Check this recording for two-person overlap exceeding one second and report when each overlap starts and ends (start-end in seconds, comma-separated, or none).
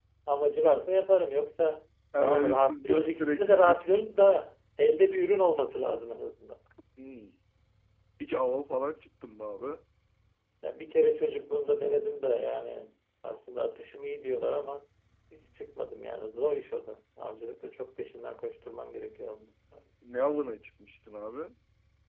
2.2-3.8